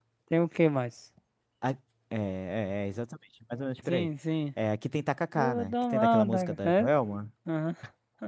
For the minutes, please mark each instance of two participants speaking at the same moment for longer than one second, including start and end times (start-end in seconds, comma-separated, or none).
5.4-6.9